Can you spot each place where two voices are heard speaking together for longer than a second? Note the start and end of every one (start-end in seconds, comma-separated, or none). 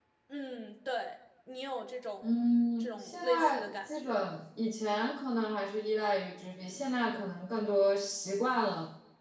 2.8-4.3